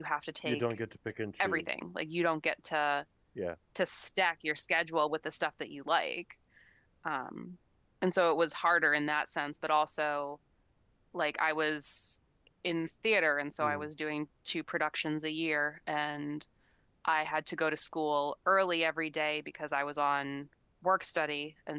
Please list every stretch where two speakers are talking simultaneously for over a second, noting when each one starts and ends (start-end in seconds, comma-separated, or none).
none